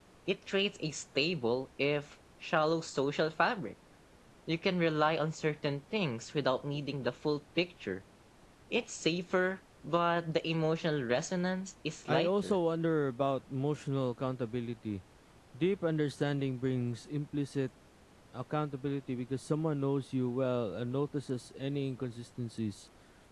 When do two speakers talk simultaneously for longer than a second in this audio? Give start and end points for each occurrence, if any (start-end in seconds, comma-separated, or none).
none